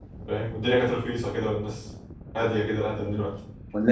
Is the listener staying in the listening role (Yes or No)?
No